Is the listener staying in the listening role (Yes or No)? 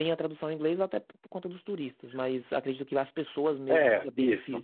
No